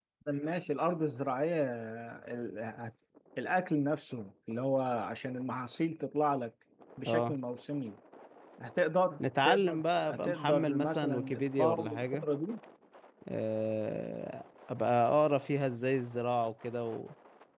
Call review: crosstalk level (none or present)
present